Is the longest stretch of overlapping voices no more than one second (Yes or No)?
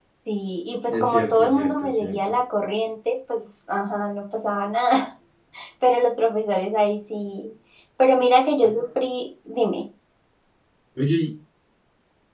No